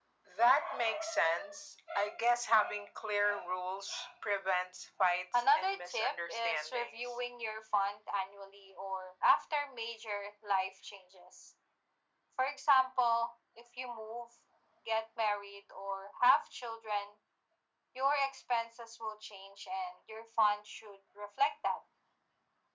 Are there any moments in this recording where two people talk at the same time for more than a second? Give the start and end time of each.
5.3-7.0

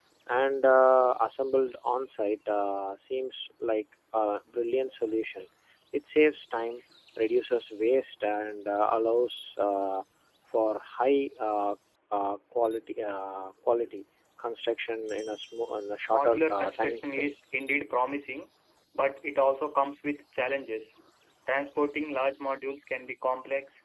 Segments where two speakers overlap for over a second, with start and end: 16.1-17.3

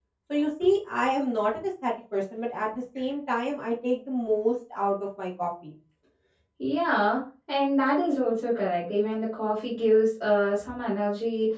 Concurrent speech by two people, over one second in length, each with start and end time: none

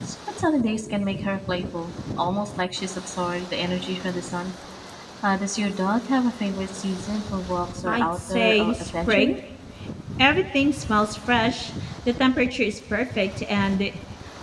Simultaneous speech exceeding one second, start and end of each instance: 7.9-9.4

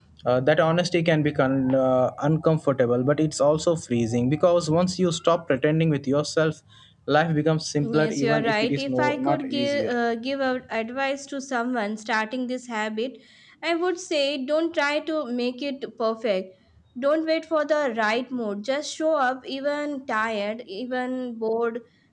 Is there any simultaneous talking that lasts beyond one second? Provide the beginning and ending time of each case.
7.8-9.9

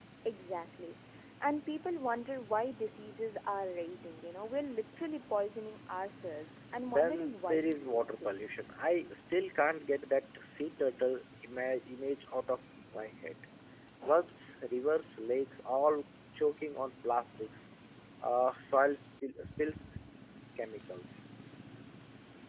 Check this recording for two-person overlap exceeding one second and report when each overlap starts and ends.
6.8-8.3

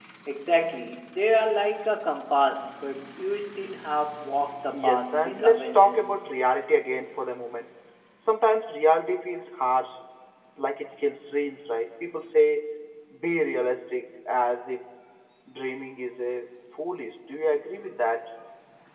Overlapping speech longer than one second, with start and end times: 4.7-6.2

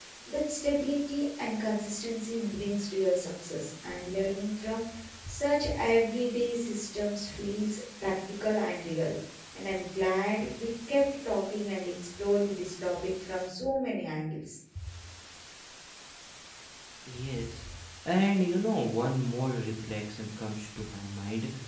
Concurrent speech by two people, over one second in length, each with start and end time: none

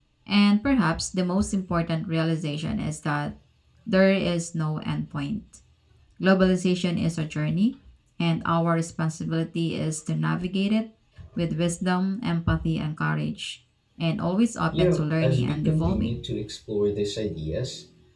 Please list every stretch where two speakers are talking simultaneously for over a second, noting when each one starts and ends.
14.8-16.2

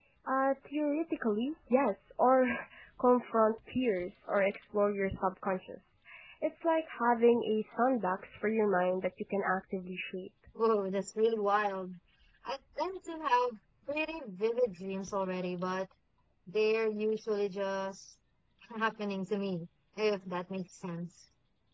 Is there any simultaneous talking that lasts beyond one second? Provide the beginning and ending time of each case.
none

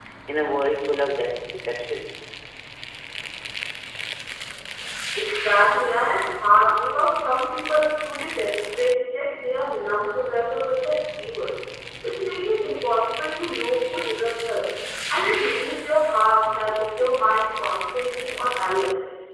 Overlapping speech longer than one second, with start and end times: none

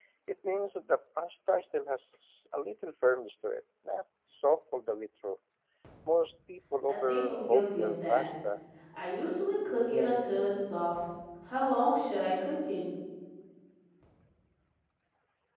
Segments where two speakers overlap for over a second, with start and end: 6.9-8.2

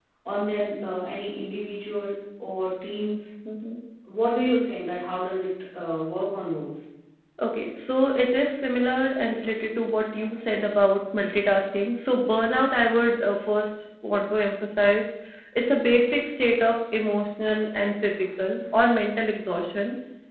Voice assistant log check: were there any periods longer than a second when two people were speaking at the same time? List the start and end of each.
none

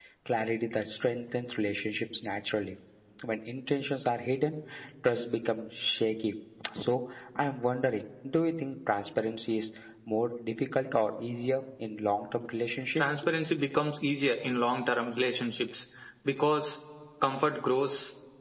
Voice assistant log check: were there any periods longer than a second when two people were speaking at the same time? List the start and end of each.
none

